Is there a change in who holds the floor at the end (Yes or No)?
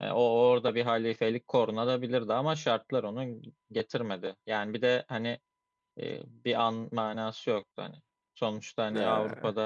No